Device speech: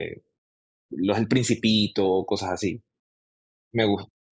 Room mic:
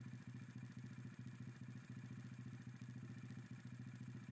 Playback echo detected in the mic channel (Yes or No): No